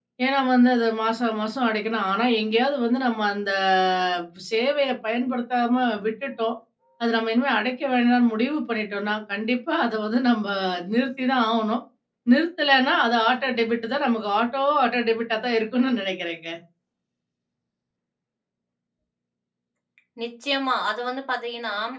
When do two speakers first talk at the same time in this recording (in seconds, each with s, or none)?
none